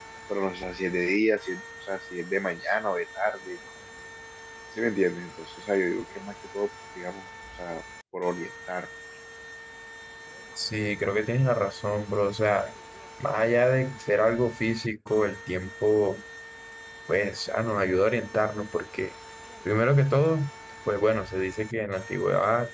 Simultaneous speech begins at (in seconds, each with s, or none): none